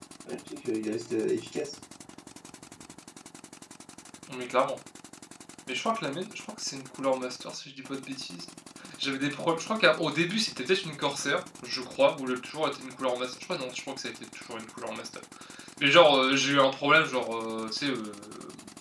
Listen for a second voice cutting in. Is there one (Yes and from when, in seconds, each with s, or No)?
No